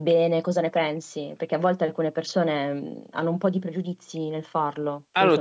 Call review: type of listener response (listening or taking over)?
taking over